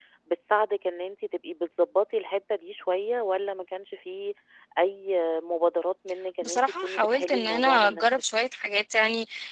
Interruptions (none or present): present